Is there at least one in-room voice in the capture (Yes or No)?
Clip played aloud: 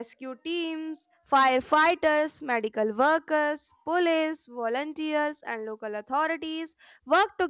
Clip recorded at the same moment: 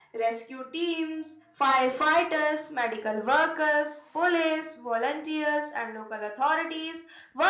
No